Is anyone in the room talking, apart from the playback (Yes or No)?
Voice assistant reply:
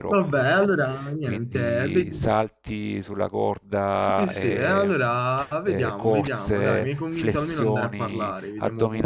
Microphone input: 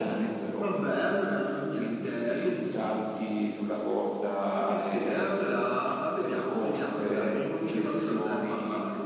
No